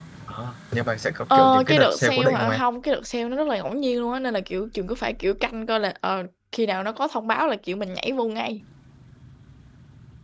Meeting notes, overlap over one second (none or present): present